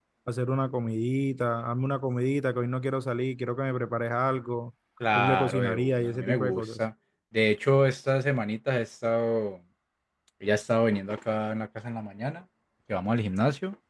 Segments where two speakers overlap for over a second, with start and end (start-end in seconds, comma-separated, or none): 5.2-6.8